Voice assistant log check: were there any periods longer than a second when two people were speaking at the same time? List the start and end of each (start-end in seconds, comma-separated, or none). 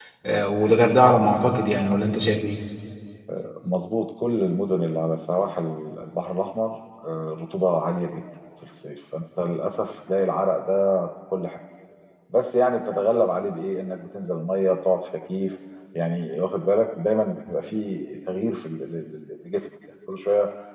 none